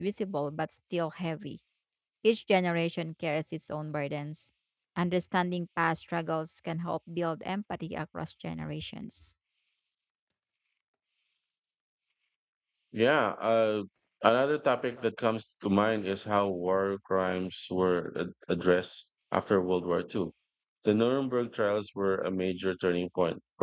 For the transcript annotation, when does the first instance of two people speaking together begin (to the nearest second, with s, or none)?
none